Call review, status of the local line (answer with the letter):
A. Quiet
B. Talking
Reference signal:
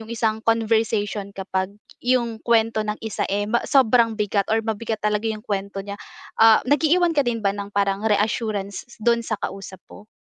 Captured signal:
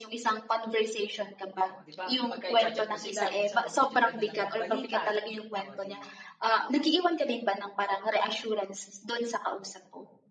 B